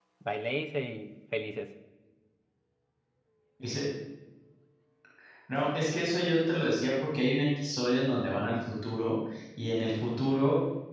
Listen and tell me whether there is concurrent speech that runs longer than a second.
No

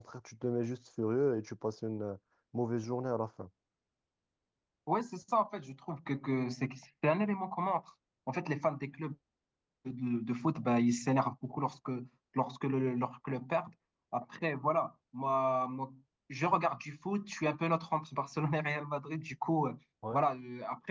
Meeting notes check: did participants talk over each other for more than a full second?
No

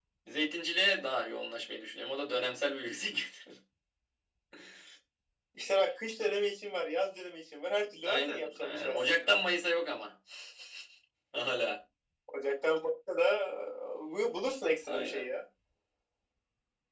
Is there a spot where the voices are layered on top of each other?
Yes, from 8.0 s

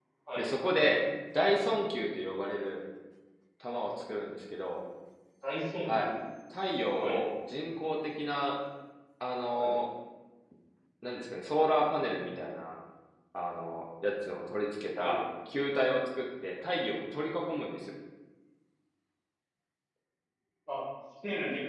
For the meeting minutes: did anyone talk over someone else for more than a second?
No

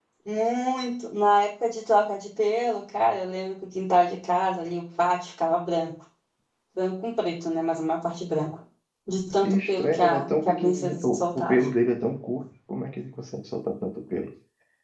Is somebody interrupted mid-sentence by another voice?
Yes, from 9.4 s

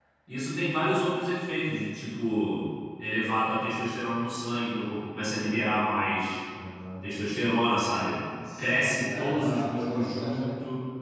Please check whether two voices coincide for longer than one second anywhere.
Yes, from 8.4 s

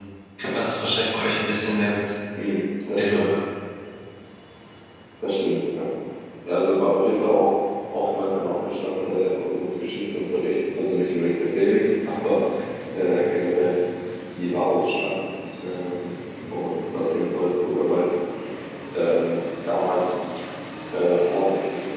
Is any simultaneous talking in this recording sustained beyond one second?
No

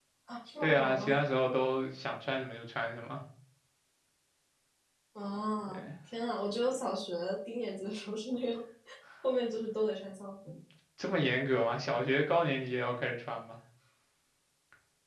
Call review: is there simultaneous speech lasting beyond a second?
No

